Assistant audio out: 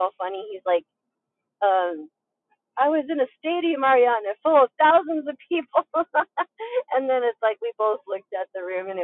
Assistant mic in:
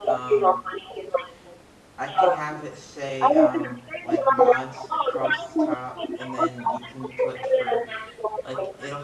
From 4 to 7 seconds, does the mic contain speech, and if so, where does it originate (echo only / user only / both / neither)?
both